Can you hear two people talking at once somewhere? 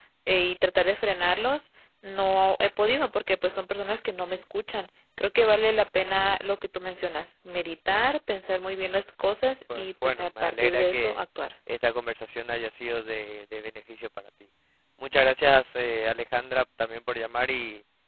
Yes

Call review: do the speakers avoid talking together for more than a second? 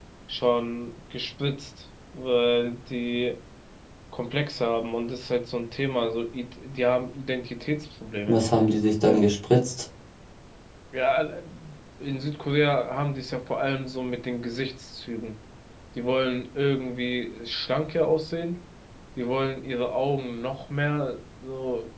Yes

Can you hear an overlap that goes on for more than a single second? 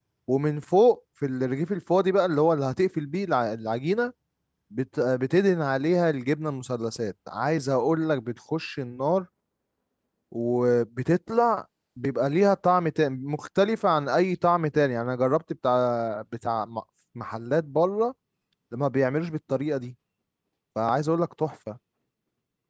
No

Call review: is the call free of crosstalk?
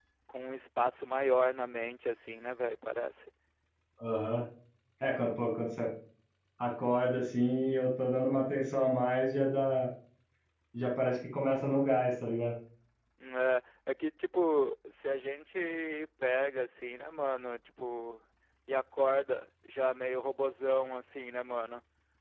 Yes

